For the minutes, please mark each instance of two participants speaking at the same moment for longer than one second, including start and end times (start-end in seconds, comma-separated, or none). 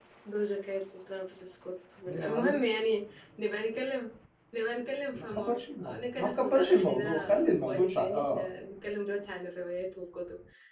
5.1-8.5